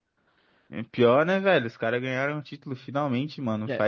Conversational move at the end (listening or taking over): listening